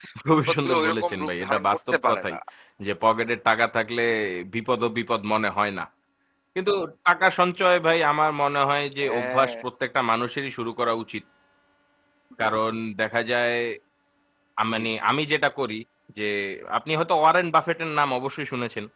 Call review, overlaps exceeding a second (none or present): present